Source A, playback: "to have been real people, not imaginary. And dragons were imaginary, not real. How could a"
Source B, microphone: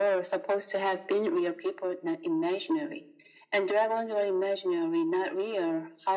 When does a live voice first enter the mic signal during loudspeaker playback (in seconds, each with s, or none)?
none